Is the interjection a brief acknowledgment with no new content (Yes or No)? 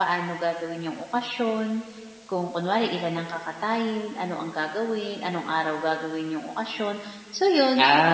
No